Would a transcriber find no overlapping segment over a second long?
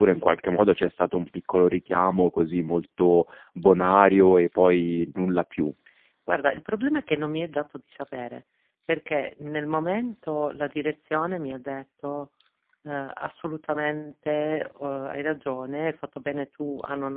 Yes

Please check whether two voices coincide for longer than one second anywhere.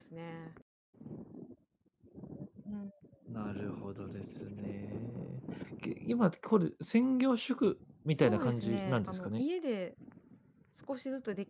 Yes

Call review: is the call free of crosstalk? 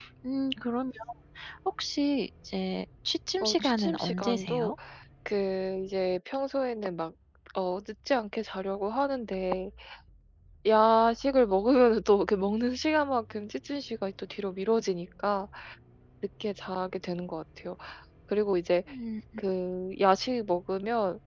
No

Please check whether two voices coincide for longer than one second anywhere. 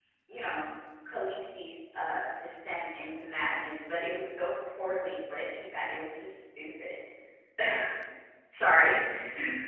No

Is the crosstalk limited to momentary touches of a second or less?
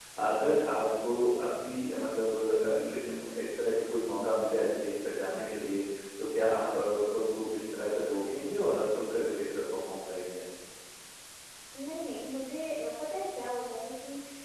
Yes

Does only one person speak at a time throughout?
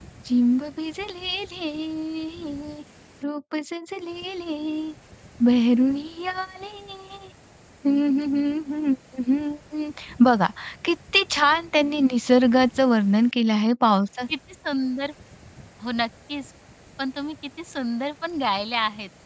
Yes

